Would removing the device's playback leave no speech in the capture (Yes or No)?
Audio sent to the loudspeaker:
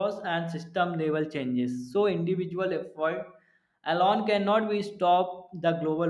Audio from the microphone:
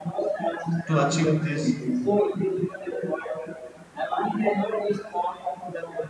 No